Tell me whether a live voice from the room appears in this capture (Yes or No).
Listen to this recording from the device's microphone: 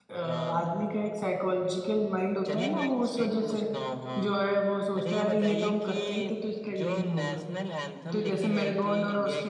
Yes